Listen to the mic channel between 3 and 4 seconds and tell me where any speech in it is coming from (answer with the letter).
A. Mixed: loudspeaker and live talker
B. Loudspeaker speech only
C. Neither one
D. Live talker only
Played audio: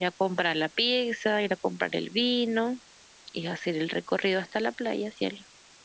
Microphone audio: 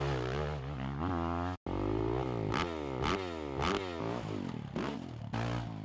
C